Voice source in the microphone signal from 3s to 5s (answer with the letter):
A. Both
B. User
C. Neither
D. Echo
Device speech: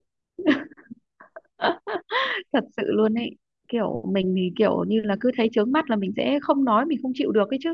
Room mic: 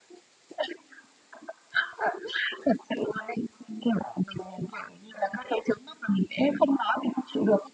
D